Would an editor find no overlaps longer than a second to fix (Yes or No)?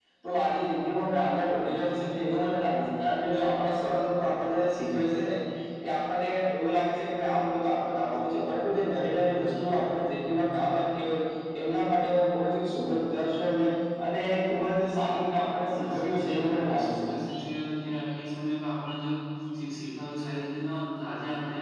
No